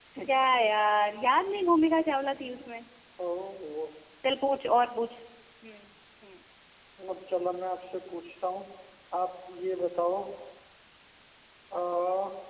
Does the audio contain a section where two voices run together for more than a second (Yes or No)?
No